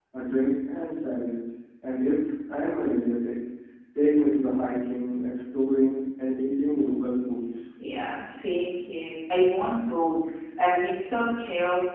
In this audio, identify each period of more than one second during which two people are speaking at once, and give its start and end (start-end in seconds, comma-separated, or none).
none